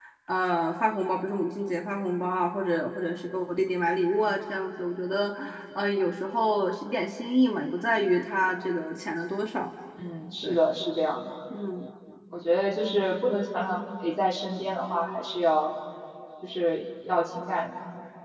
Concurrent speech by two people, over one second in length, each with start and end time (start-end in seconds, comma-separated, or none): none